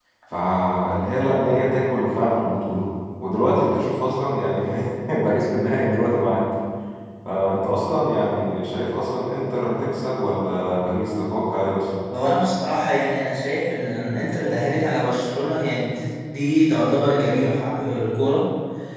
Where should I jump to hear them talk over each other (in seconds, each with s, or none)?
none